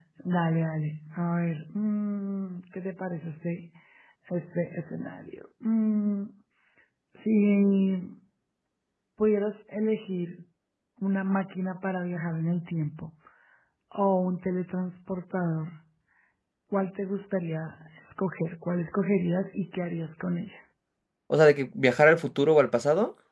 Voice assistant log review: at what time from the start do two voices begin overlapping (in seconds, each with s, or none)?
none